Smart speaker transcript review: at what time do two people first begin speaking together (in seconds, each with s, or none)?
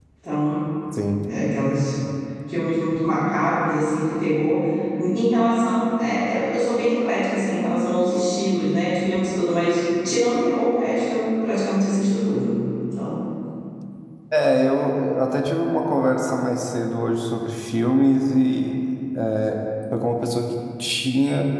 none